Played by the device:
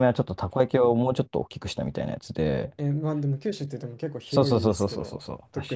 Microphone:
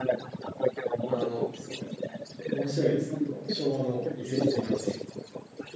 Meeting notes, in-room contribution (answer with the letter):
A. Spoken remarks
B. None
A